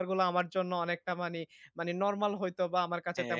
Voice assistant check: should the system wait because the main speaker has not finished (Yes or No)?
No